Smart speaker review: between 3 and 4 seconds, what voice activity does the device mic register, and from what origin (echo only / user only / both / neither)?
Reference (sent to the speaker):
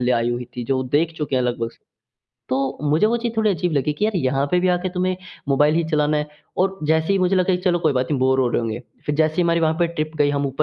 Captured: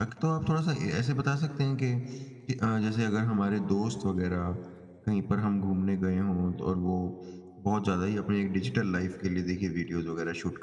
user only